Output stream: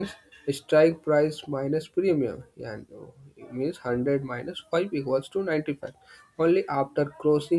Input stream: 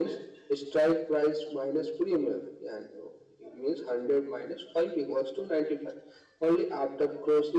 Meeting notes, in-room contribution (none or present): none